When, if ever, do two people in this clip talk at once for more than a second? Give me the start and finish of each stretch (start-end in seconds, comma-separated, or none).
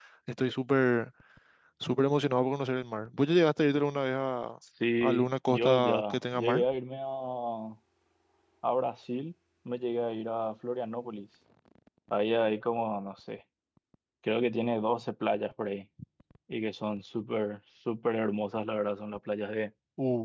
5.0-6.6